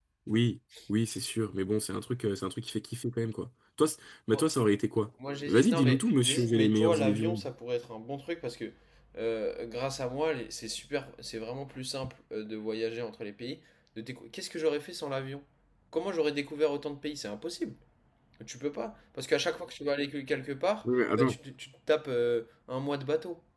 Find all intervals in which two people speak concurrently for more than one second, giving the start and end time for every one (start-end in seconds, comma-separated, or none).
5.5-7.4